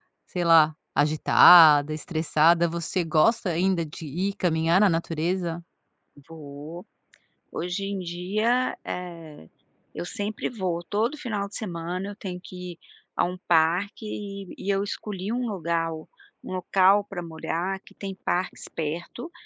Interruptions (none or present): none